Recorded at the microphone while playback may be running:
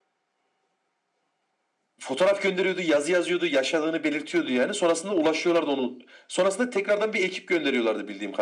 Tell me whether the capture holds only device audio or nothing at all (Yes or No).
Yes